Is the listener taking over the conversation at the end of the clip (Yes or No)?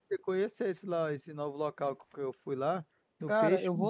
Yes